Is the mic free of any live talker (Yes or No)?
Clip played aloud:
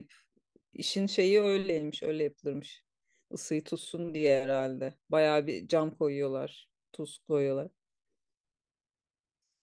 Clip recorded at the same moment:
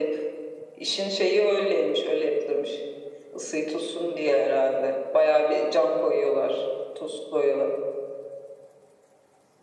Yes